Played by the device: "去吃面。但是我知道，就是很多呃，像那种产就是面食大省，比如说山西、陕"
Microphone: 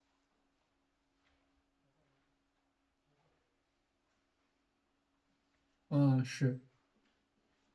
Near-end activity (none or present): present